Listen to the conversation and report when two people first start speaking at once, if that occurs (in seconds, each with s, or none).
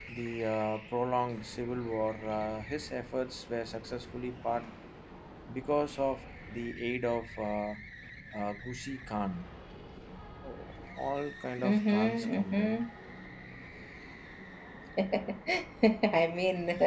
11.6 s